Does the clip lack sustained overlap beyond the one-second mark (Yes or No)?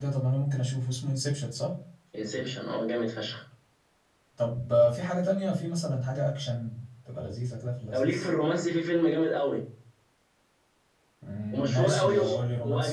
No